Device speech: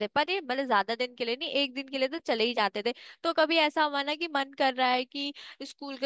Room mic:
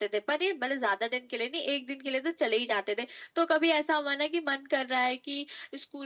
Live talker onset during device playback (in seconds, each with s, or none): none